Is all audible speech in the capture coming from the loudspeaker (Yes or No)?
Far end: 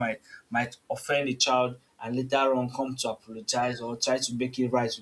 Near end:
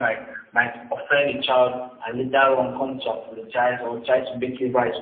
Yes